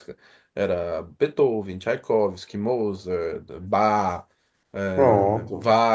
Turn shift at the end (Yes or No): No